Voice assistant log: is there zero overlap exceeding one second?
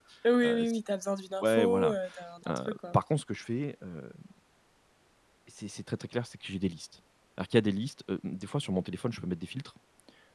Yes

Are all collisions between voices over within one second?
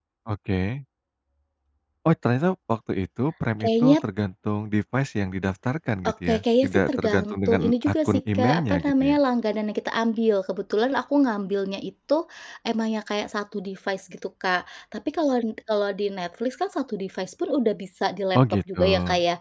No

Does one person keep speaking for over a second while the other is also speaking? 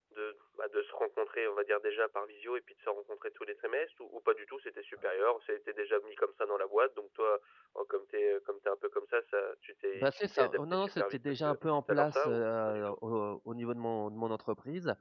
Yes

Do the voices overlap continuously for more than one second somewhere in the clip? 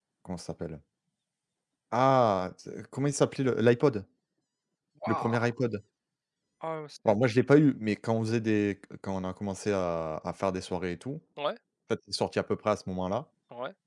No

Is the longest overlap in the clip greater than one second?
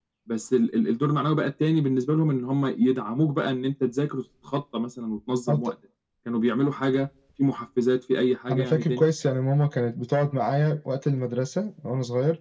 No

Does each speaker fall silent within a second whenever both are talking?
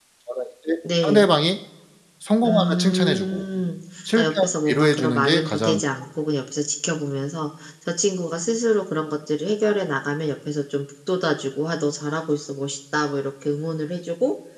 No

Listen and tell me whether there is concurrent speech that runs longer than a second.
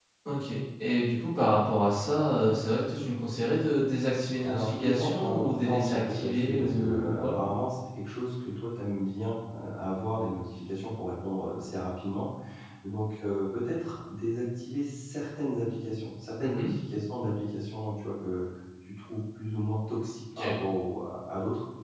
Yes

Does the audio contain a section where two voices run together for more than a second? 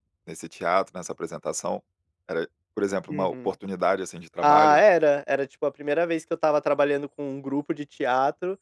No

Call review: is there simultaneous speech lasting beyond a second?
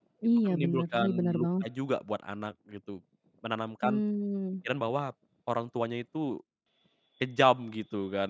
Yes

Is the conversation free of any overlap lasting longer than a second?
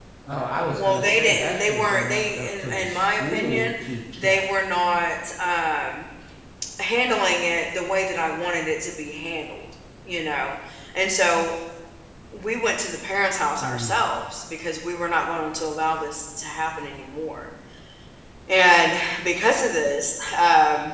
No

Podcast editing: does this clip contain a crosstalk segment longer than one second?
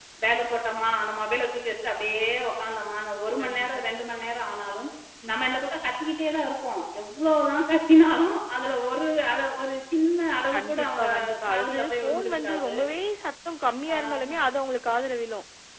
Yes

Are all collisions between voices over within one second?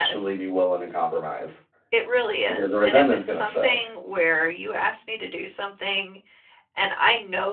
No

